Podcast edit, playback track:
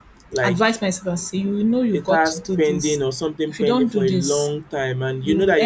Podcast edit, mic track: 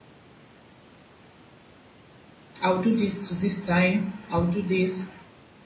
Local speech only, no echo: I'll do this to this time. I'll do this.

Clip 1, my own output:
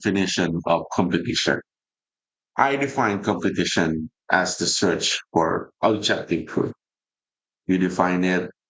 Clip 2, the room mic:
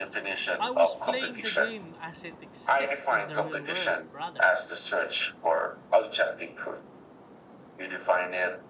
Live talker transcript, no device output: I was playing the game as it exists in the real world, brother.

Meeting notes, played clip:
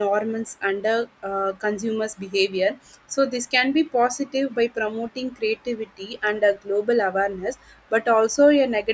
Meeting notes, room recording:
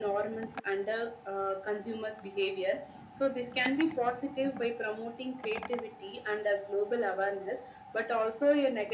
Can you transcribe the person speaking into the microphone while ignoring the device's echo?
none

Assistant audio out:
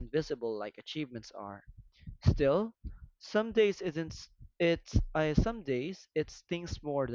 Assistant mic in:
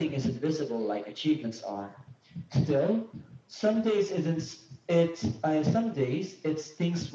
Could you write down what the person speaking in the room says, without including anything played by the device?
none

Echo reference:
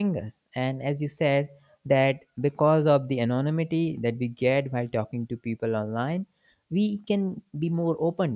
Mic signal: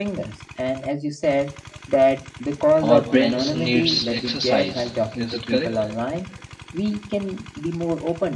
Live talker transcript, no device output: Our brains needs exercise. Is it correct?

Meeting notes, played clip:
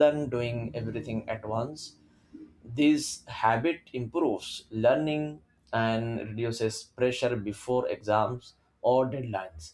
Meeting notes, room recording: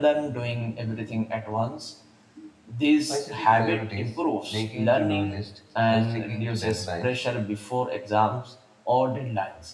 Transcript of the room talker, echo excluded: By setting priorities, making to do lists, and sticking to deadlines,

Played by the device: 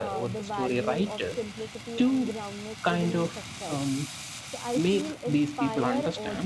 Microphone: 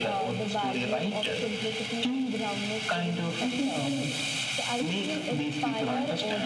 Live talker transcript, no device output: and people

